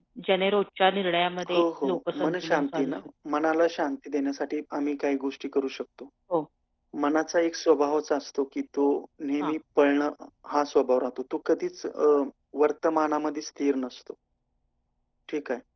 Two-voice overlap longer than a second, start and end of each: 1.5-2.9

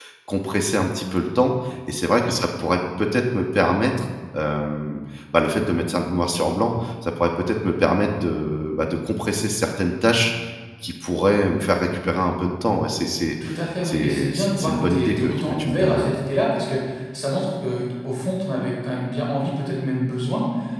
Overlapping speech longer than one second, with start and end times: 13.8-16.2

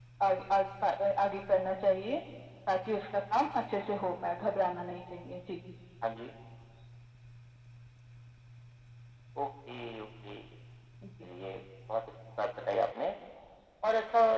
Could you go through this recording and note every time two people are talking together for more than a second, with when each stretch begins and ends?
none

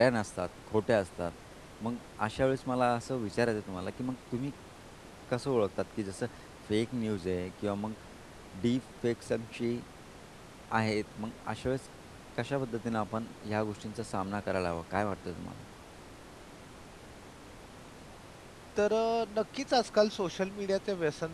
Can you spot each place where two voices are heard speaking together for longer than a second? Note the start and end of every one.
none

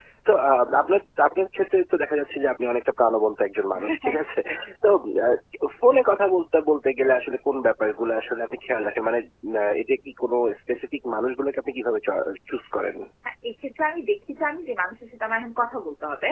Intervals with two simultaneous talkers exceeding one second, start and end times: none

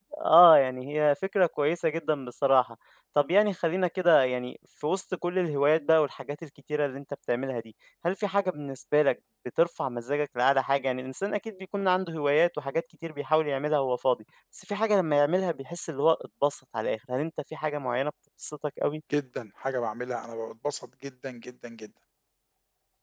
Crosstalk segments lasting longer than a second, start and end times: none

